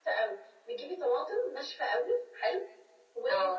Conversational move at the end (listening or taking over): listening